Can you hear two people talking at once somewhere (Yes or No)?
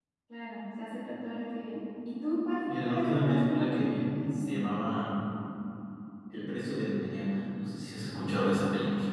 Yes